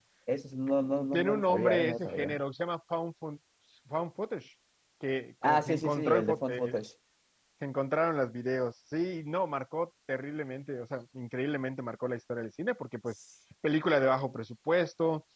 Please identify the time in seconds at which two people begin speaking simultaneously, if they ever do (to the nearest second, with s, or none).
1 s